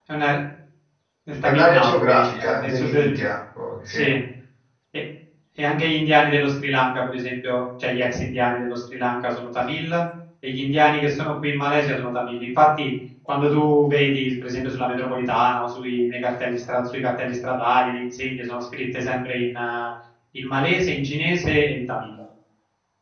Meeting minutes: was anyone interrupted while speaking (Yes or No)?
Yes